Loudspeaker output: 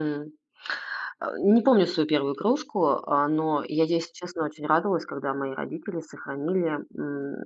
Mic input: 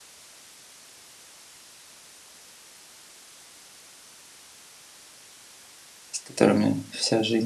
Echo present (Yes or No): No